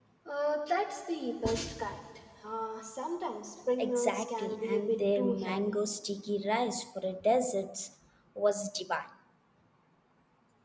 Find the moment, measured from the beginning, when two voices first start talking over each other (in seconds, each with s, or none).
3.8 s